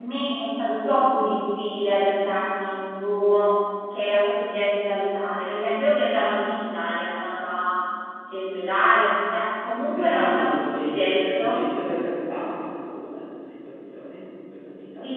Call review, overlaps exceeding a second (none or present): present